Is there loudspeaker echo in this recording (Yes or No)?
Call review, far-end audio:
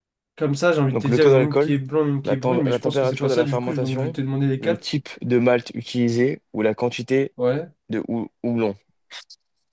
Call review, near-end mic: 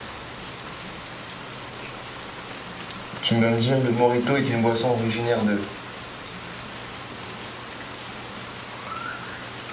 No